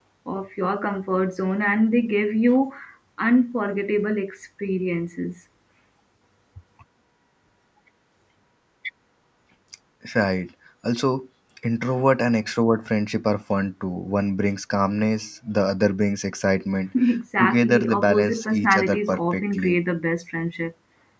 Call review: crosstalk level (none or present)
present